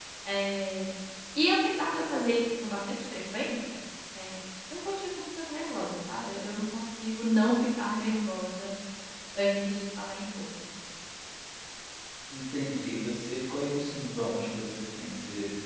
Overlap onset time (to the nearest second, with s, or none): none